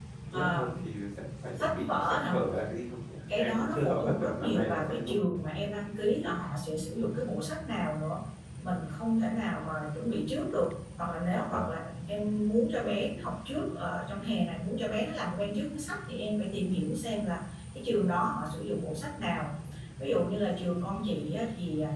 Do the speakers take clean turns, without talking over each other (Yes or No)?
No